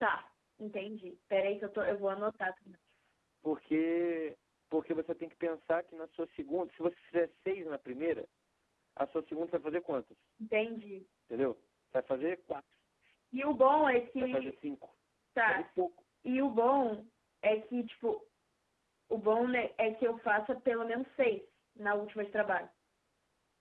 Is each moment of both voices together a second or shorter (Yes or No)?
Yes